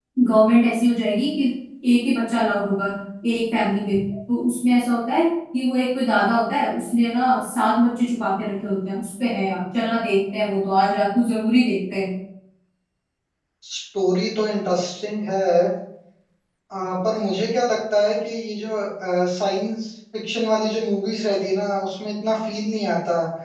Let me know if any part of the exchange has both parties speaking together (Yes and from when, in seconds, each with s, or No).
No